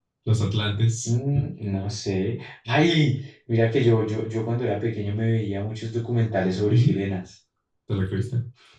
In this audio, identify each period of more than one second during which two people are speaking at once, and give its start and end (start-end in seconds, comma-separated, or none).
none